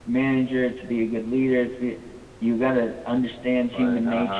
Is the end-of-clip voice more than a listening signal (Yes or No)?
No